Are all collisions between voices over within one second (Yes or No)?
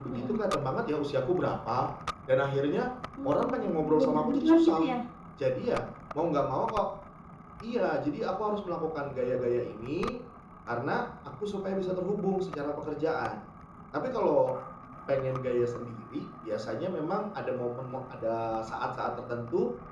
No